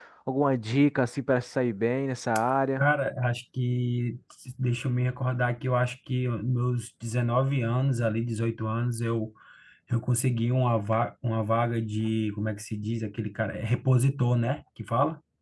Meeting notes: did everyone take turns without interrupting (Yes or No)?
Yes